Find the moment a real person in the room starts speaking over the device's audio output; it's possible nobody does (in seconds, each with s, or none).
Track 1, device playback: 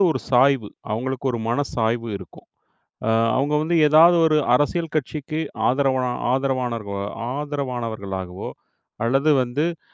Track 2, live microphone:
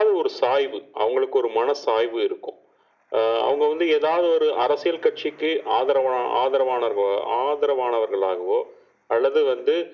none